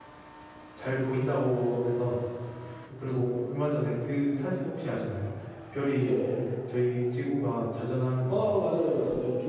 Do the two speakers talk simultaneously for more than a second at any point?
No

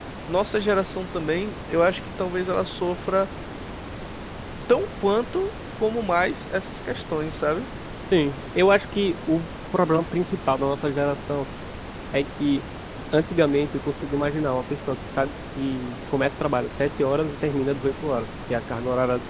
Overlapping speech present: No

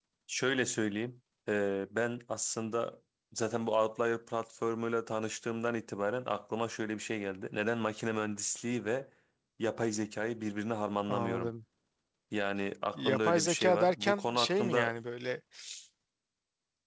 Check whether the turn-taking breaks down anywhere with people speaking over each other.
Yes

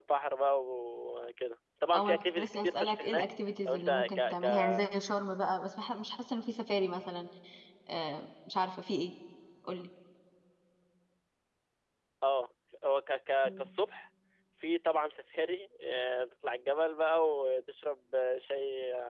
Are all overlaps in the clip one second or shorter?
No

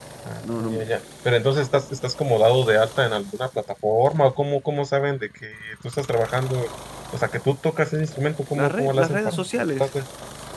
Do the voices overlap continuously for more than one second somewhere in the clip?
Yes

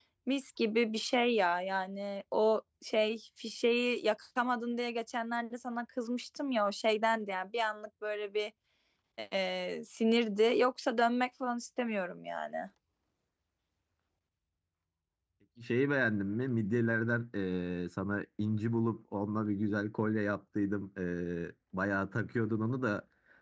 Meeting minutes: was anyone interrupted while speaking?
No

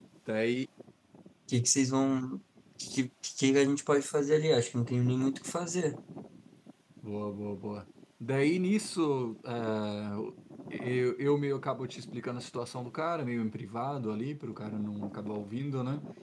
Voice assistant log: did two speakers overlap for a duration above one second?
No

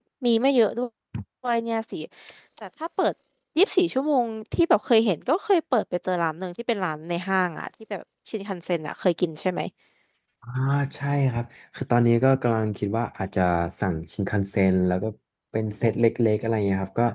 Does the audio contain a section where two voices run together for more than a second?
No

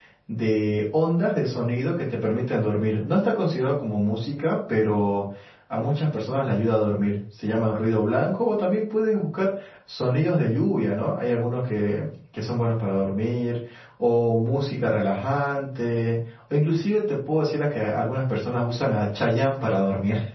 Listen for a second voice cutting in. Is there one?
No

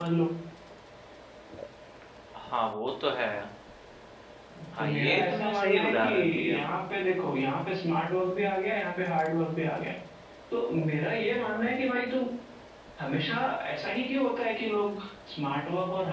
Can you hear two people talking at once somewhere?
Yes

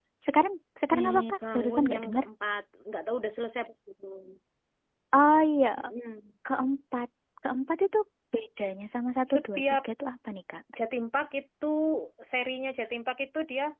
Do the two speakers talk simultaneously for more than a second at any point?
Yes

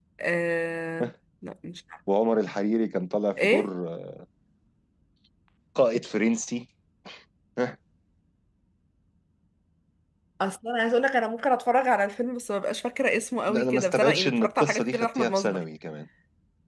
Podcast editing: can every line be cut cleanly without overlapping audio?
No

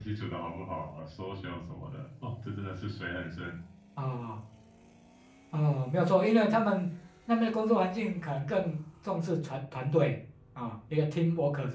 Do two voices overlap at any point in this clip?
No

